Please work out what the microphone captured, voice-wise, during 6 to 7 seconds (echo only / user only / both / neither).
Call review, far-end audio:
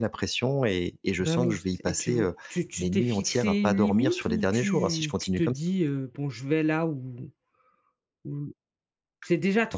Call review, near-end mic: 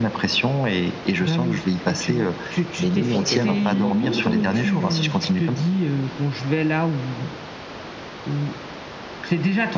echo only